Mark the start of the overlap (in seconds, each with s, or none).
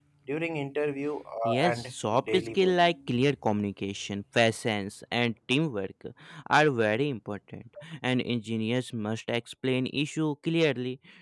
1.4 s